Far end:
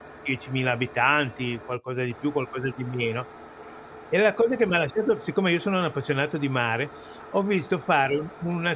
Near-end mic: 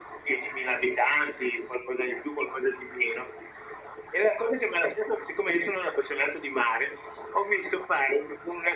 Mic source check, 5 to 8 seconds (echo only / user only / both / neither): echo only